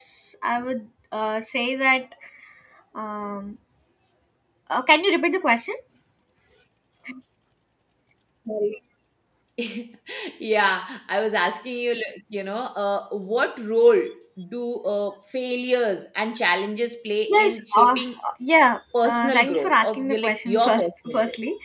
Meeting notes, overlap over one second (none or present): present